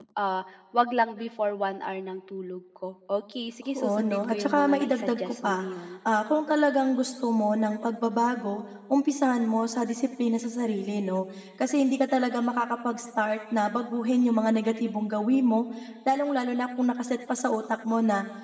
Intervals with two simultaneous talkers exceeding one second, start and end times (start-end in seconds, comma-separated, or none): 3.8-5.7